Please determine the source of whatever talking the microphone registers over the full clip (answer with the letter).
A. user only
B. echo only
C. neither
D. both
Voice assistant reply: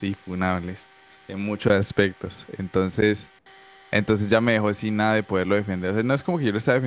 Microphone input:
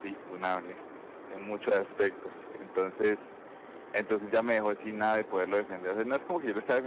B